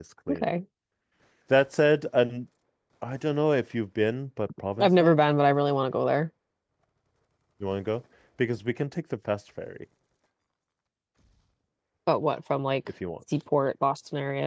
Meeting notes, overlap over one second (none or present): none